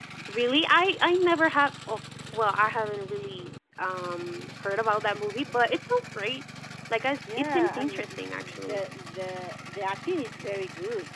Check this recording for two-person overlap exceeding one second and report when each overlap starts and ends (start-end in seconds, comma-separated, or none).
7.4-8.8